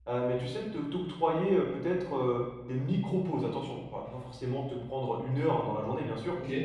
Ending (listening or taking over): listening